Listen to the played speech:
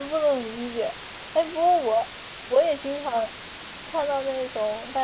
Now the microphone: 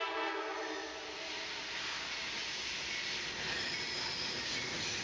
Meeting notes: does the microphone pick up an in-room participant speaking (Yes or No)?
No